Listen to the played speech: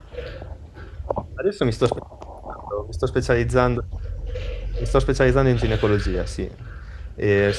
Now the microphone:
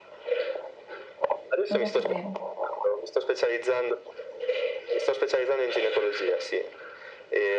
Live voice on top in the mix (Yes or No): No